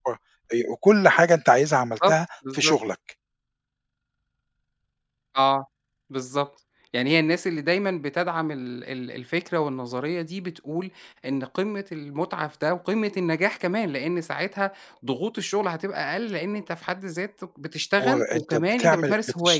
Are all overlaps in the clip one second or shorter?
No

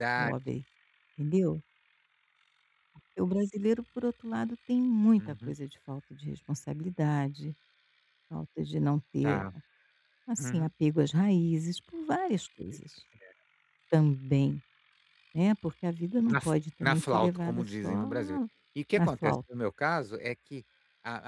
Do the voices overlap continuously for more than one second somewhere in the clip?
Yes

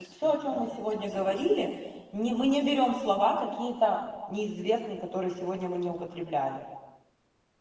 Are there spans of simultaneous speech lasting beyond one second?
Yes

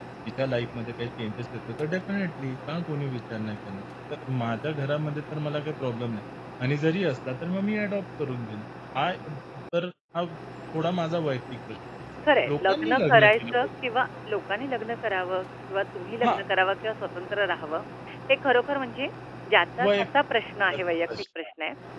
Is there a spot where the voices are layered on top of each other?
Yes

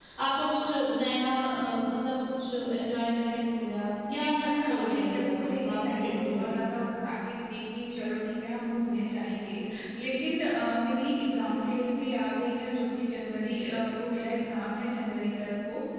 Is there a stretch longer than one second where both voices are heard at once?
Yes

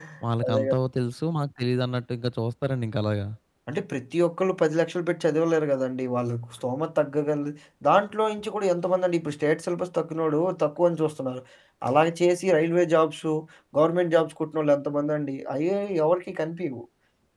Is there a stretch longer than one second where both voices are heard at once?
No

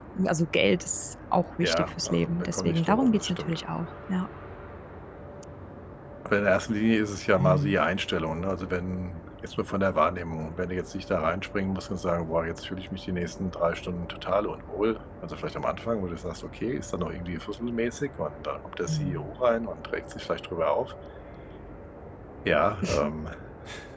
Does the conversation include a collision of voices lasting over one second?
Yes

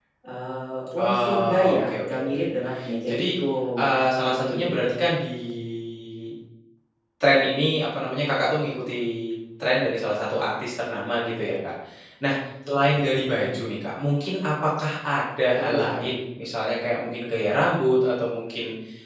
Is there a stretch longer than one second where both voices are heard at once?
Yes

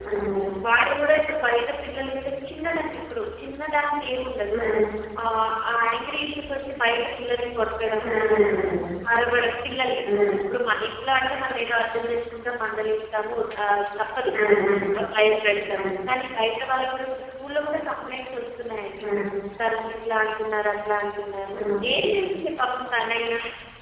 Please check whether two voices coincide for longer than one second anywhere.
No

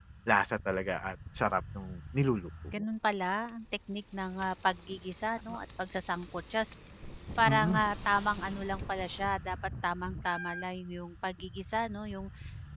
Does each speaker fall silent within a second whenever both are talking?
Yes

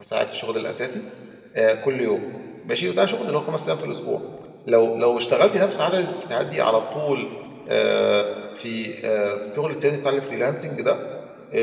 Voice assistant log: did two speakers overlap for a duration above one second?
No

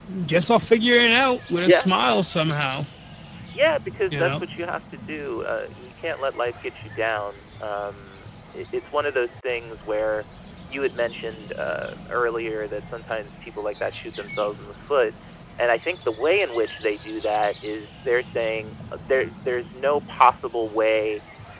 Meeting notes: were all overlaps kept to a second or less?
Yes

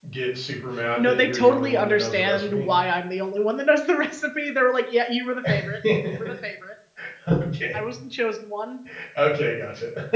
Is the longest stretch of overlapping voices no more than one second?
No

